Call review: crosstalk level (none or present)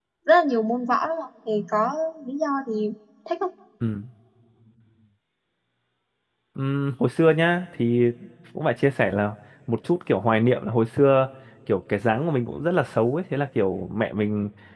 none